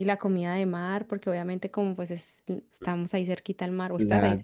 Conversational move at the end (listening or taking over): taking over